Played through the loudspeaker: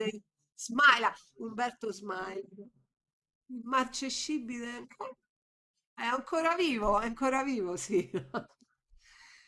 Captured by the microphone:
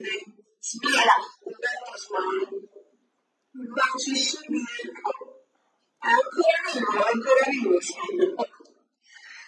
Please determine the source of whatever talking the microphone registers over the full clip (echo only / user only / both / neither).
echo only